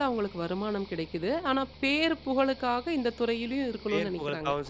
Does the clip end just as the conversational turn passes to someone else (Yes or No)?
Yes